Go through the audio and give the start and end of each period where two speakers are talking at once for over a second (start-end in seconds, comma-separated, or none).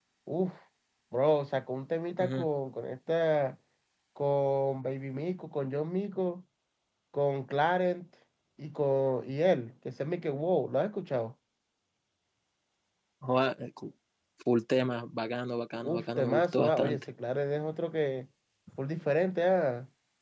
15.8-17.1